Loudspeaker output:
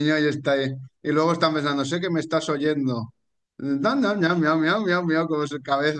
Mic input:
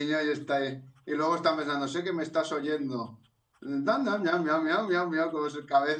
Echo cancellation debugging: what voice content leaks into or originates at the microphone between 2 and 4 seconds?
echo only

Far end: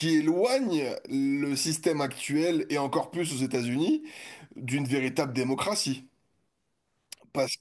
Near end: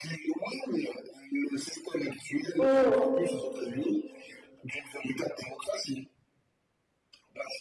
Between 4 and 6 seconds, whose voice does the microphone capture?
echo only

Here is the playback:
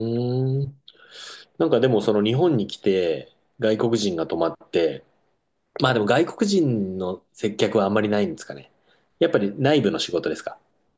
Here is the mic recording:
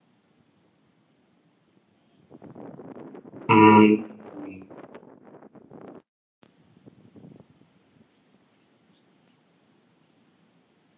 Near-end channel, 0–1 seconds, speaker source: neither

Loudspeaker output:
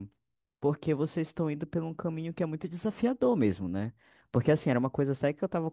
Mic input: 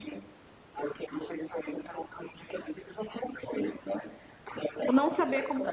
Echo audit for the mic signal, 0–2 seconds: echo only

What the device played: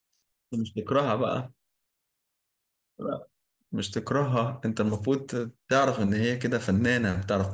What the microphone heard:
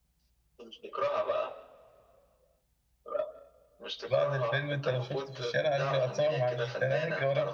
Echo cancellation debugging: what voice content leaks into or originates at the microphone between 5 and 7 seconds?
both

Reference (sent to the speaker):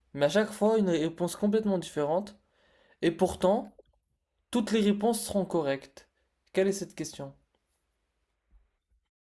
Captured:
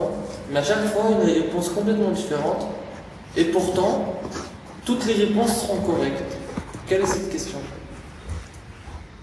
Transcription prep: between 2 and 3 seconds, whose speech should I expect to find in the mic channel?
echo only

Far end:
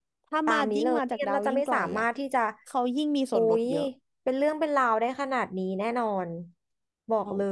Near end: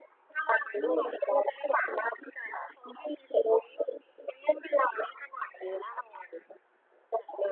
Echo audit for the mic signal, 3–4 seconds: echo only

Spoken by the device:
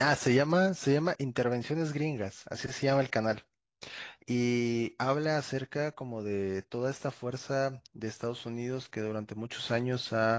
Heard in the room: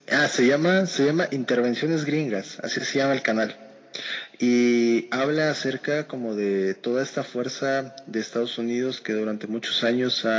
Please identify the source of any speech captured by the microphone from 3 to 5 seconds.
echo only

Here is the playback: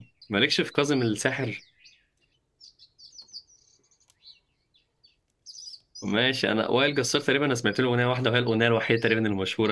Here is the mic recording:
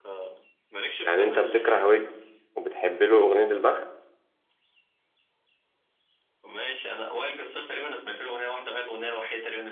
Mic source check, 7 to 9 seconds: echo only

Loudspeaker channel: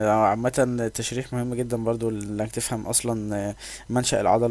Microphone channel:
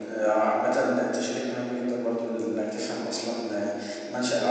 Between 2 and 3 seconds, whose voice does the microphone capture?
echo only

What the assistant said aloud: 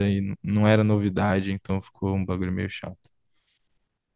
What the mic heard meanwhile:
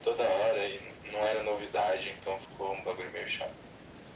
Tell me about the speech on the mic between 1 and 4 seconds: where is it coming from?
echo only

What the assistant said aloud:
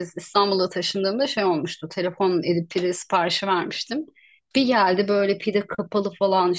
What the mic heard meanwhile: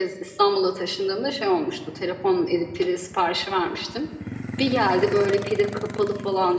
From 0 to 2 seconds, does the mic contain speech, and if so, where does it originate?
echo only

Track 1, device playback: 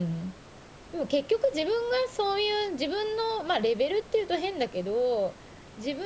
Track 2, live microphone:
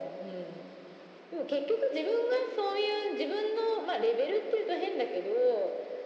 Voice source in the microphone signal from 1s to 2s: echo only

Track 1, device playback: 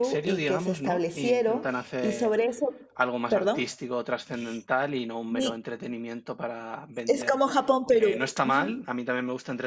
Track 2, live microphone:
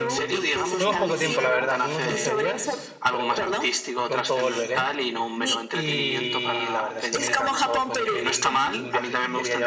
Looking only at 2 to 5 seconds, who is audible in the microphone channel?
both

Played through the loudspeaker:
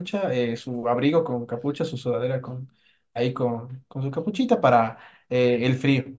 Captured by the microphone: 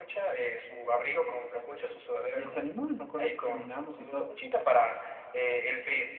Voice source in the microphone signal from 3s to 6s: both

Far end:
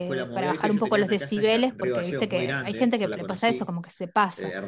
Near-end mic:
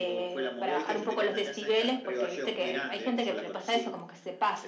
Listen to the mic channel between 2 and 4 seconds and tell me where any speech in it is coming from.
echo only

